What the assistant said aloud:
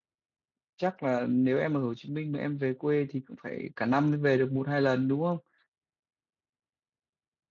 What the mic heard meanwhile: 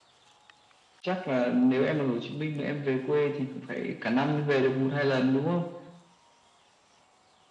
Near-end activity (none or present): none